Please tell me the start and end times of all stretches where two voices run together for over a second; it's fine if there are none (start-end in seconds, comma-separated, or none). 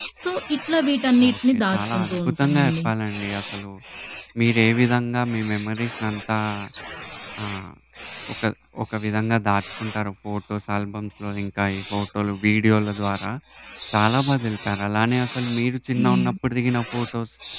1.3-2.9